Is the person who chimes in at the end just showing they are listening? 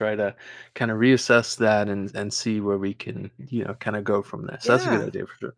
No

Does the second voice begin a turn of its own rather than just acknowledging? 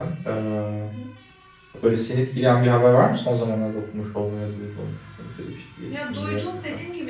Yes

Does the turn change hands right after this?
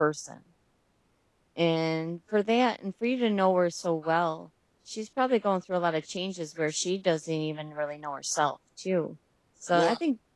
No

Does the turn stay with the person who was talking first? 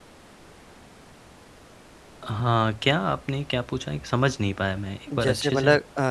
No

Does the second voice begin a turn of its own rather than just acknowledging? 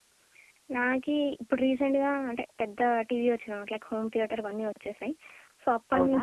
No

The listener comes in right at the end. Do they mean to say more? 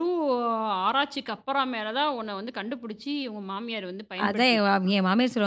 Yes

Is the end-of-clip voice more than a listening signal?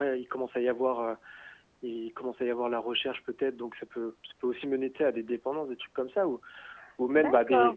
Yes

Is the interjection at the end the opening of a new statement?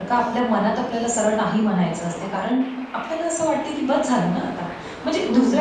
No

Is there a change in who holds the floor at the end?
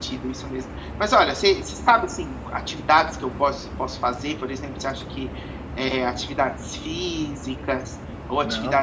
No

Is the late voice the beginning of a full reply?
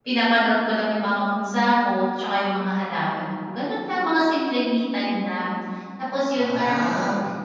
No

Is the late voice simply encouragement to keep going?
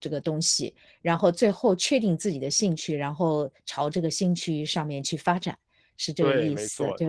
No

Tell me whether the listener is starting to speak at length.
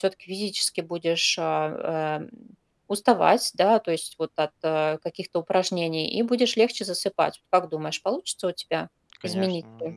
Yes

